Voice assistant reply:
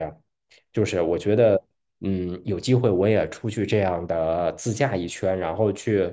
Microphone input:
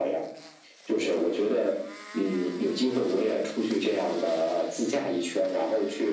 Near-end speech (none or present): none